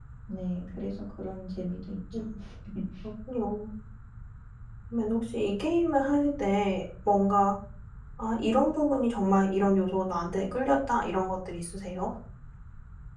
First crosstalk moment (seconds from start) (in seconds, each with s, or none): none